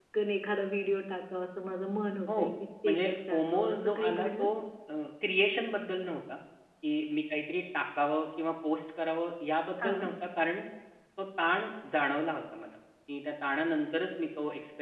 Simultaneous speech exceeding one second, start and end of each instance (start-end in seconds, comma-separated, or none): 2.9-4.5